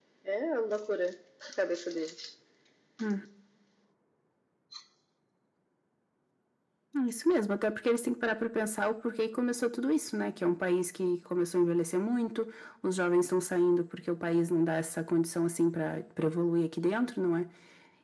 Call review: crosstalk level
none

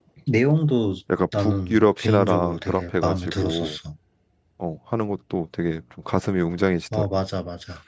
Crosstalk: present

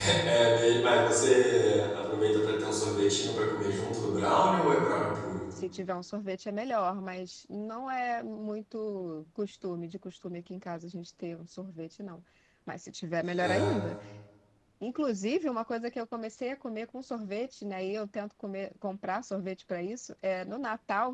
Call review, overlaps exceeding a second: none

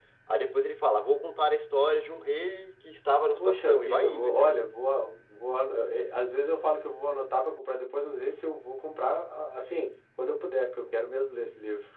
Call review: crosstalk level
present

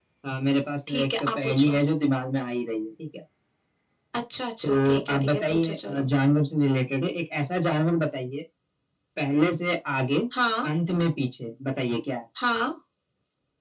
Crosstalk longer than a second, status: present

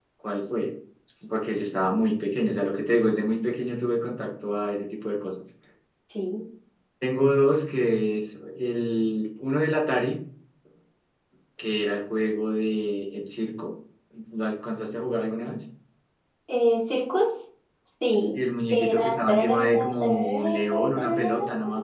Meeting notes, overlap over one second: present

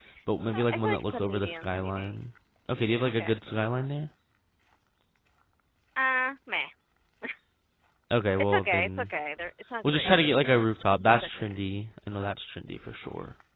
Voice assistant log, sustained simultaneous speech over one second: present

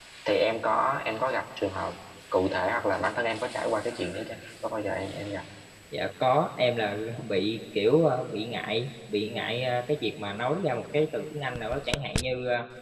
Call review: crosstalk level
none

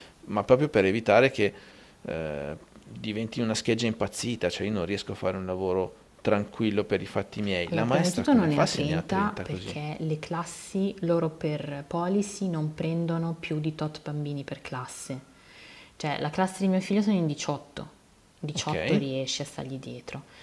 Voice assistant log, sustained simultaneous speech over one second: present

